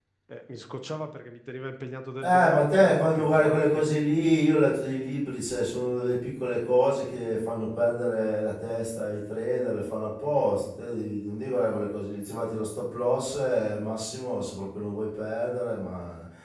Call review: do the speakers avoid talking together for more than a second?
No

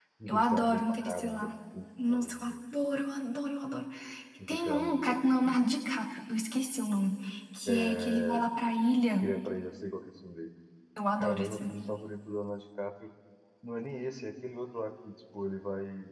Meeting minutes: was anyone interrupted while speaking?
Yes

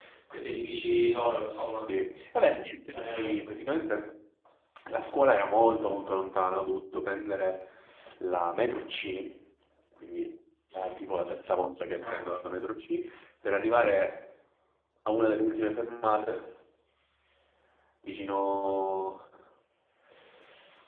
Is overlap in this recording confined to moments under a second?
Yes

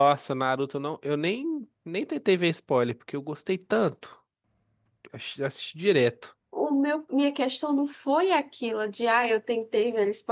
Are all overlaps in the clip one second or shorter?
Yes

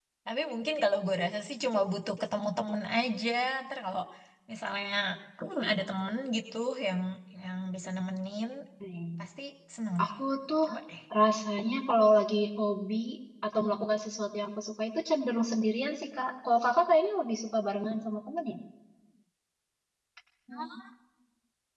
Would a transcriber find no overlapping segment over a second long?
Yes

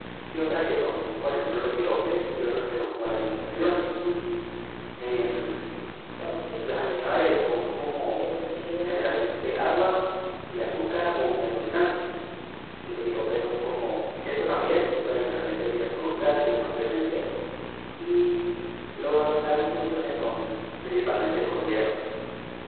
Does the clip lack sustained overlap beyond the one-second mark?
Yes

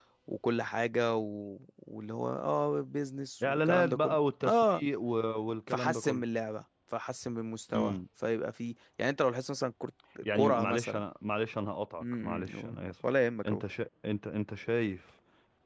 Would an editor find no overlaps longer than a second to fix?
No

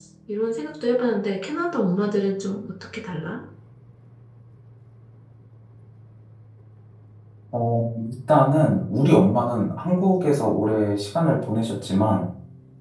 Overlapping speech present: No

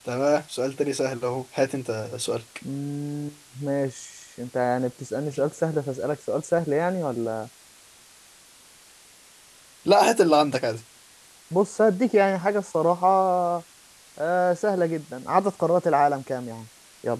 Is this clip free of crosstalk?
Yes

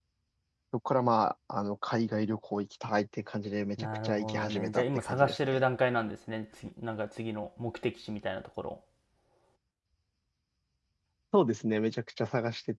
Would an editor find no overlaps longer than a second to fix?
No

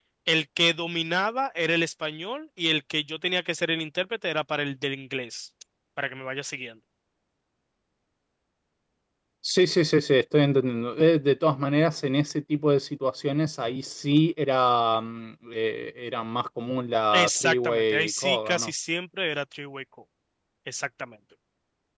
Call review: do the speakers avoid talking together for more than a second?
No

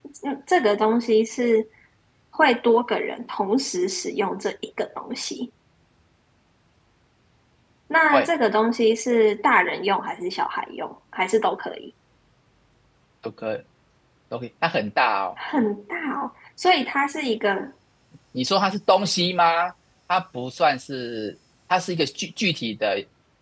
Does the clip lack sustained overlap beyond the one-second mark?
Yes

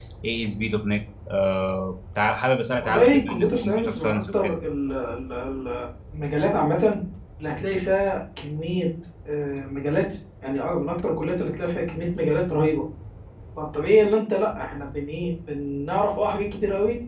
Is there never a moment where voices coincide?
No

